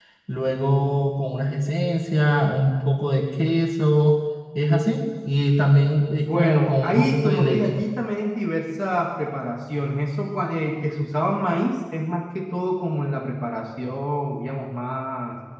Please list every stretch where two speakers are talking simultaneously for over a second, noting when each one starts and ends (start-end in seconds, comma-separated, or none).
6.2-7.8